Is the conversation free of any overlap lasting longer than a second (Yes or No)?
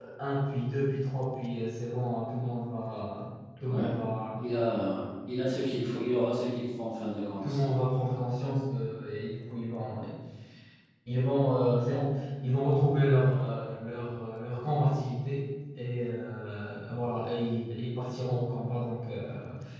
Yes